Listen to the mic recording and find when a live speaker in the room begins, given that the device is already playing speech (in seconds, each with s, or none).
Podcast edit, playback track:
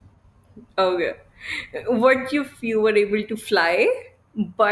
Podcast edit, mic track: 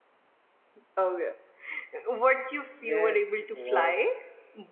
2.8 s